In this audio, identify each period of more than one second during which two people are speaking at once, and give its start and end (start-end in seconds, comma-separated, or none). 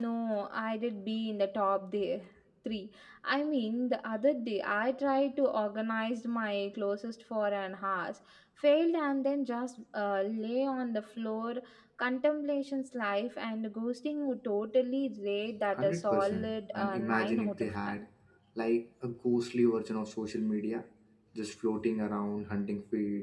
15.6-18.0